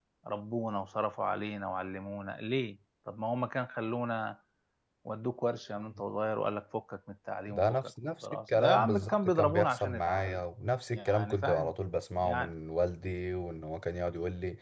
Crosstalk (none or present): present